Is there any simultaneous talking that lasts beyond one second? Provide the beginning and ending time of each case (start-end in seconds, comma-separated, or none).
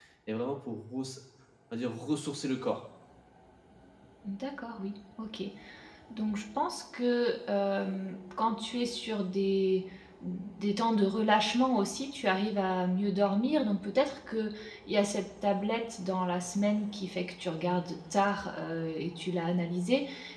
none